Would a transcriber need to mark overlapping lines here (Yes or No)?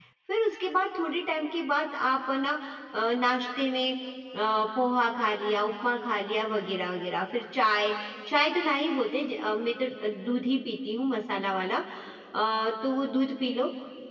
No